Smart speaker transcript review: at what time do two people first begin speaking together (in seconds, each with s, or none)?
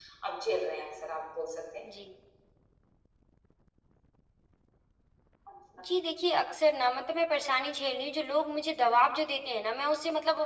none